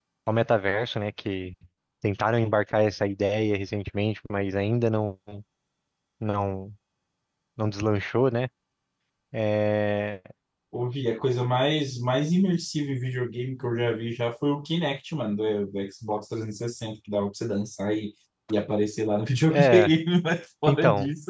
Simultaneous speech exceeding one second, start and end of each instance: none

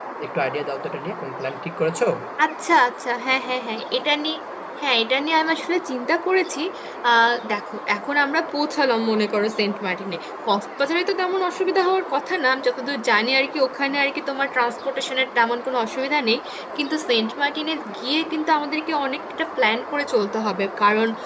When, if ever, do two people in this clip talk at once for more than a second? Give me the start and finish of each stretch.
none

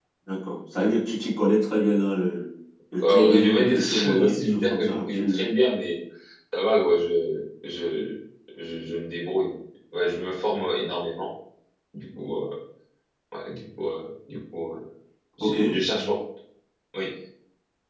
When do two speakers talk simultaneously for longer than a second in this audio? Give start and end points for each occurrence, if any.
3.0-5.4

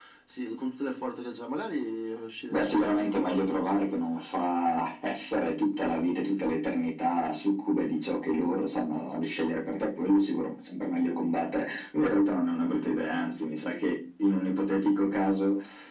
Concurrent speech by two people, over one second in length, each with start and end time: 2.5-3.9

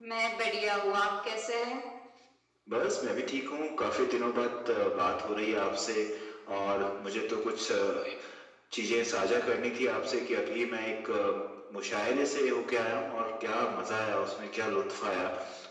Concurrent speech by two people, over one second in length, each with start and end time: none

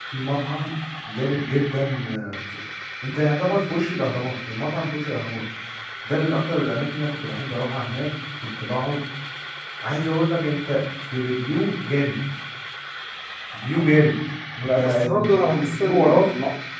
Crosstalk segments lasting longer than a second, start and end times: 14.6-16.2

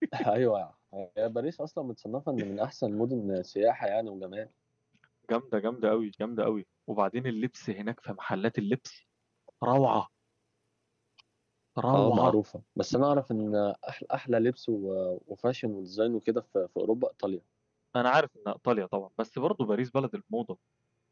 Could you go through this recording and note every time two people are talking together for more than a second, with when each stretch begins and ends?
none

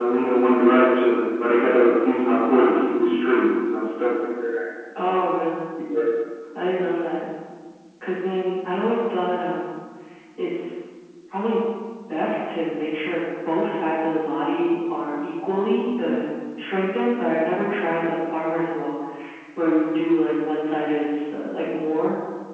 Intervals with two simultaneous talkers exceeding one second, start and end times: none

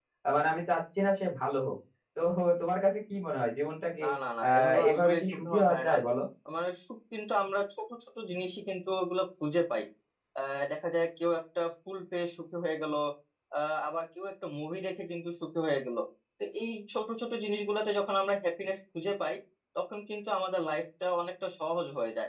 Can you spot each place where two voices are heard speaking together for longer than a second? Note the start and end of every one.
4.5-5.9

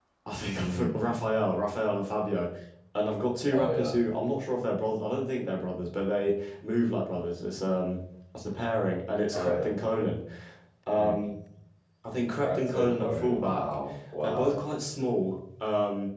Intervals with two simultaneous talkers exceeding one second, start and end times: 12.4-13.7

